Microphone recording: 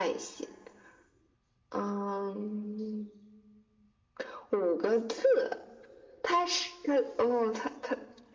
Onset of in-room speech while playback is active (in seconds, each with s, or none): none